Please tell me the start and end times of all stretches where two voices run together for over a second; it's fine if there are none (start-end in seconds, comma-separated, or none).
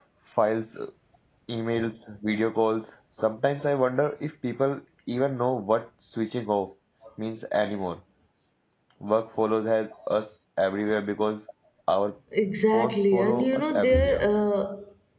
12.7-14.3